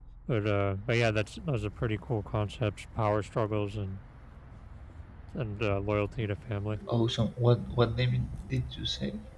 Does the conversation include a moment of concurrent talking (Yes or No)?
No